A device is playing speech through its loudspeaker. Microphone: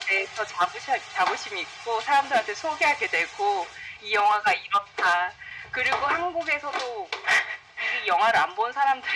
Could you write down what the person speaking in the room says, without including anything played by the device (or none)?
none